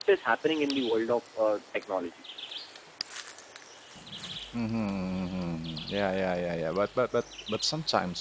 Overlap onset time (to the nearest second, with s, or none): none